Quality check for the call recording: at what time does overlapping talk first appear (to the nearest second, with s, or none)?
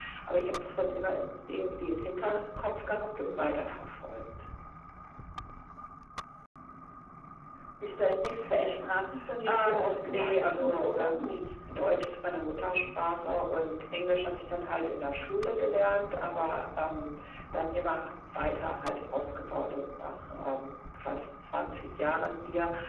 9 s